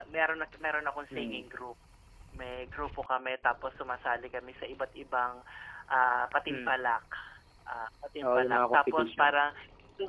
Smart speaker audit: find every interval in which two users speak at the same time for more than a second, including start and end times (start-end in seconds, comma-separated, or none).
8.2-9.4